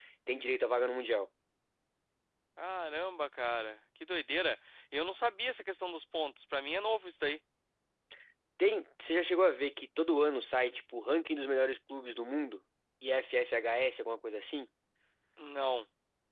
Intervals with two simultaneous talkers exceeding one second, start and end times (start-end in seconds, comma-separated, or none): none